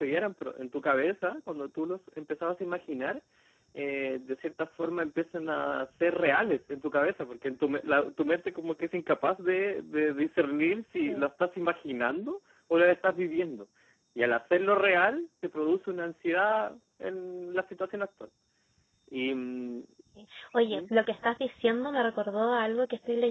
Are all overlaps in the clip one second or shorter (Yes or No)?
Yes